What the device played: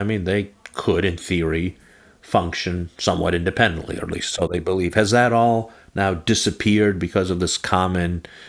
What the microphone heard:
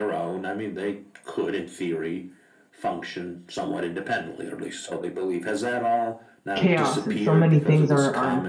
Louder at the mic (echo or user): user